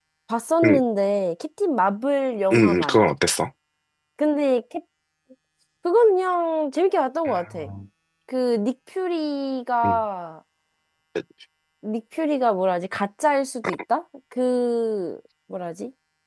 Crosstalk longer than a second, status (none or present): none